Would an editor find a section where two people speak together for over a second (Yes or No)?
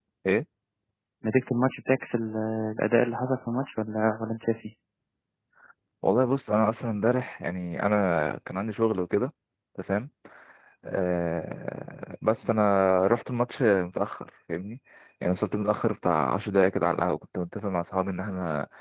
No